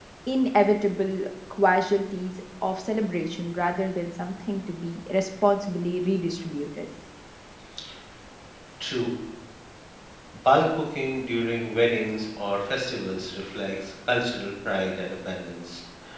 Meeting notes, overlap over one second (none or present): none